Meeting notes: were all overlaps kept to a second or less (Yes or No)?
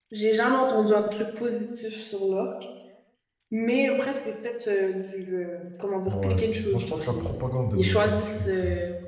No